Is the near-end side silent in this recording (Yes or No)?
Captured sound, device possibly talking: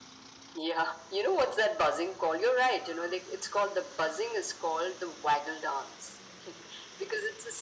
Yes